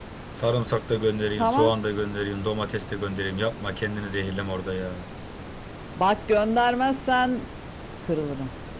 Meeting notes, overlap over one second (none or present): none